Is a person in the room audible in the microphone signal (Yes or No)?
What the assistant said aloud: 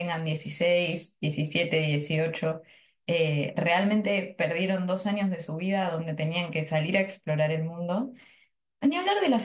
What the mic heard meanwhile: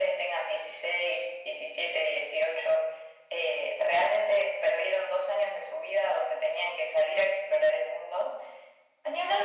No